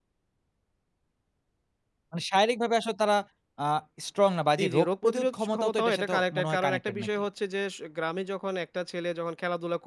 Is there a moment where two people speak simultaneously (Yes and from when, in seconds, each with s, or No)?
Yes, from 4.6 s